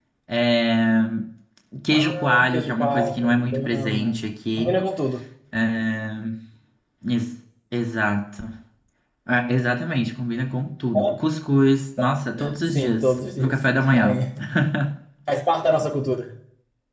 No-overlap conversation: No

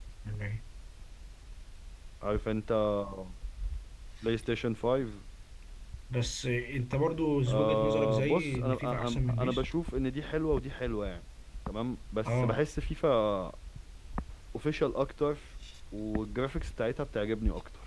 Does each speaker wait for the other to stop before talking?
No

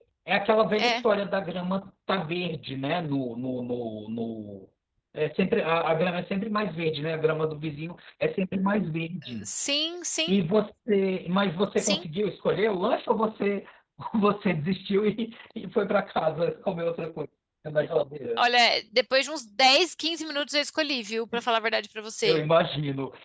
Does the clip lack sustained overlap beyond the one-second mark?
Yes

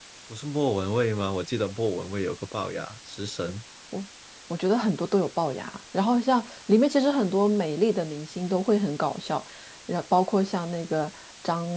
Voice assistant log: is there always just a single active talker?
Yes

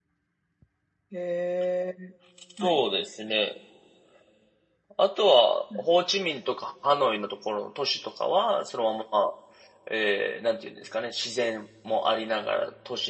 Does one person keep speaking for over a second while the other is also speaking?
No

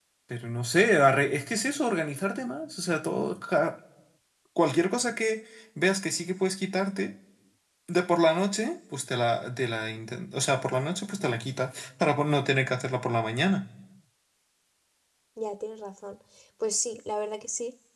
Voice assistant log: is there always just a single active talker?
Yes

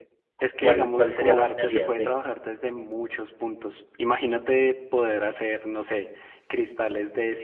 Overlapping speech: Yes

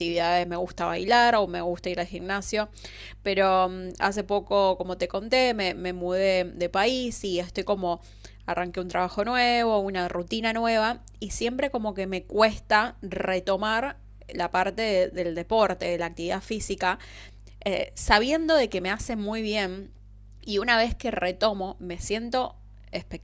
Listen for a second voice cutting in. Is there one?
No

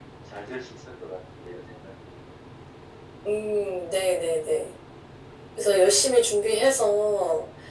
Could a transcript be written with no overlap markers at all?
Yes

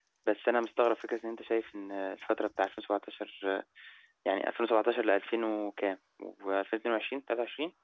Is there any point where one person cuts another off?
No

